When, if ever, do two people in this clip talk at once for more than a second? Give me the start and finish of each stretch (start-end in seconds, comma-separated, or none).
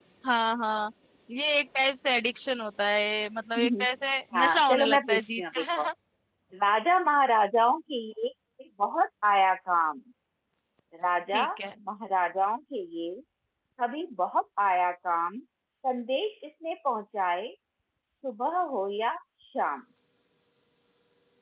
4.4-5.9